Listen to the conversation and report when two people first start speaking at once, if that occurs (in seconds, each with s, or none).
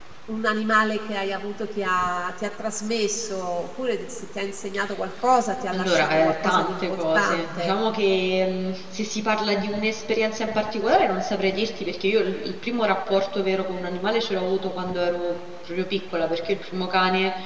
5.7 s